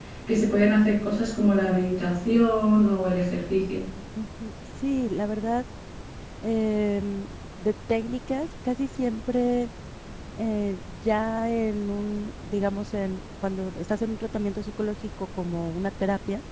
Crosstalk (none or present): none